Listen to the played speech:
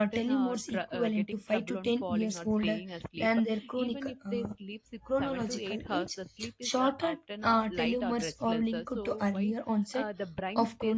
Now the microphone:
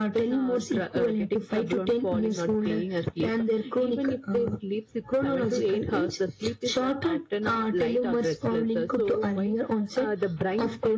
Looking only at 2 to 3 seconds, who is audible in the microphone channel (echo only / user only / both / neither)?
echo only